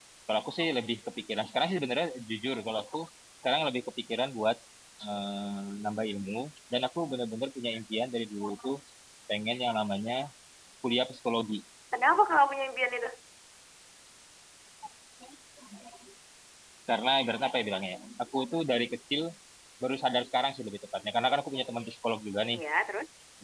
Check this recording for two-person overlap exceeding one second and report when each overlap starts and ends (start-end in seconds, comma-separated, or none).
none